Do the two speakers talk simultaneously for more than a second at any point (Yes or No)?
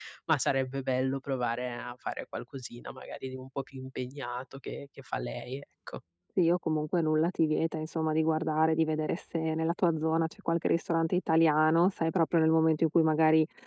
No